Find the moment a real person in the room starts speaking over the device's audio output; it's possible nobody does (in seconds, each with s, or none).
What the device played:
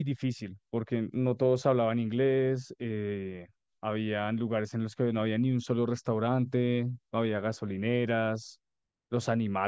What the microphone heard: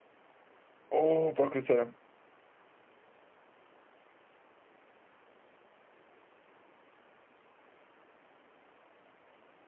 0.9 s